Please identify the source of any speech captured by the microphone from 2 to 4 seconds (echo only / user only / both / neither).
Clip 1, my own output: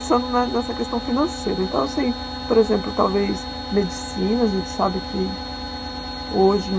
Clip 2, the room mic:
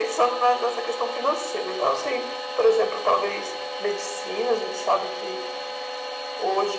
echo only